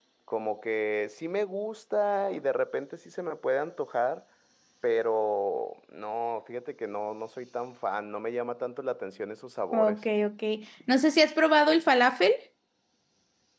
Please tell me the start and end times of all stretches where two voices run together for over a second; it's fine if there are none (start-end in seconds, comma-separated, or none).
none